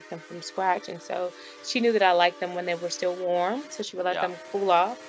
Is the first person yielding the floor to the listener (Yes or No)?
No